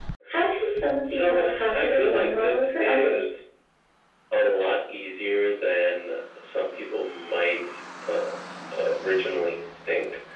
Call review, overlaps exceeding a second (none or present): present